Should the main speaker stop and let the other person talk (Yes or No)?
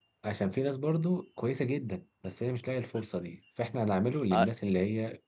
No